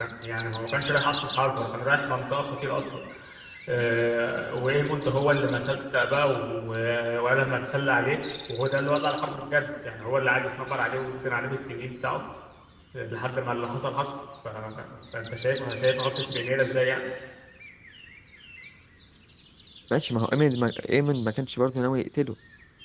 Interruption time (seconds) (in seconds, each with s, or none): none